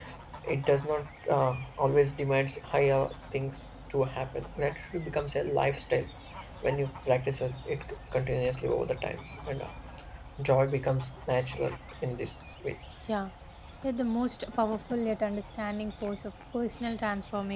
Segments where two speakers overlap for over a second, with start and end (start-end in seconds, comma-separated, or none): none